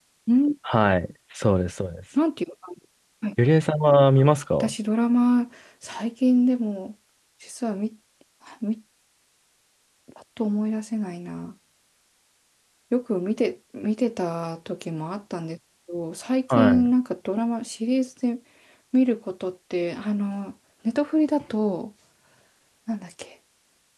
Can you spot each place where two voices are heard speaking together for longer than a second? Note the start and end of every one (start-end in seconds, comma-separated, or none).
none